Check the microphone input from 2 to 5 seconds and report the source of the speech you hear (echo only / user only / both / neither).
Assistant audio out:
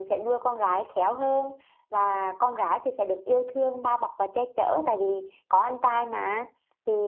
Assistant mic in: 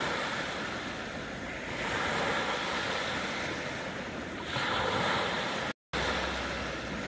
neither